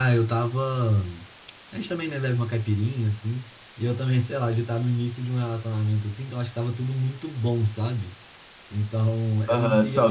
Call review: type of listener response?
taking over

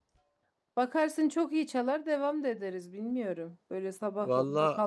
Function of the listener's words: listening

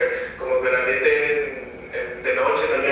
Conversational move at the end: listening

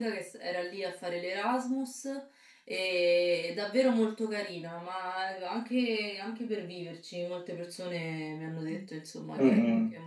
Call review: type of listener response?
taking over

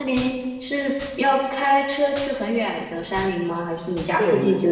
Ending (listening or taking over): taking over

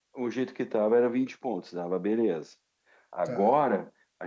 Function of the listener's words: listening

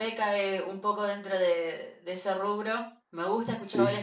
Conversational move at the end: listening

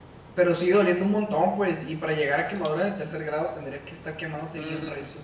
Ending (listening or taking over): taking over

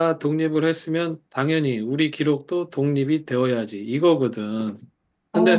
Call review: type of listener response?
listening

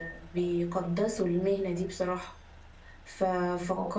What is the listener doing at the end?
listening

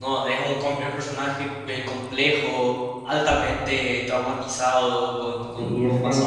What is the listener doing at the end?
taking over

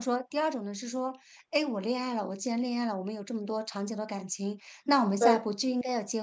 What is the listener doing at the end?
listening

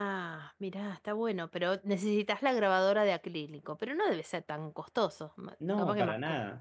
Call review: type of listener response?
taking over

